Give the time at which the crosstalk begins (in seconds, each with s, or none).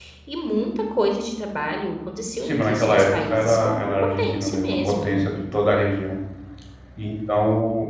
2.4 s